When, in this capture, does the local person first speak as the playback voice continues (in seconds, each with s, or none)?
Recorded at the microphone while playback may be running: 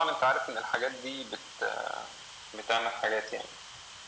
none